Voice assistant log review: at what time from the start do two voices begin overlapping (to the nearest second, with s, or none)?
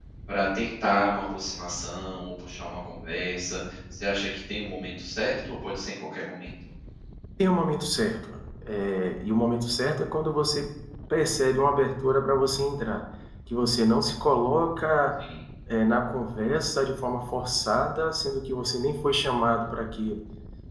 none